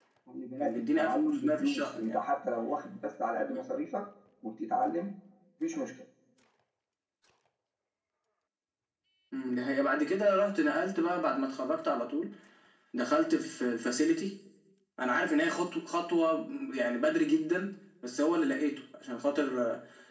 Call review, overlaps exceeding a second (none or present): present